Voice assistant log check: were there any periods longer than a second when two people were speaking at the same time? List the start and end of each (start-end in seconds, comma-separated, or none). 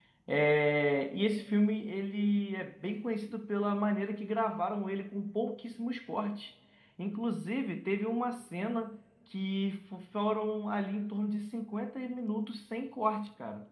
none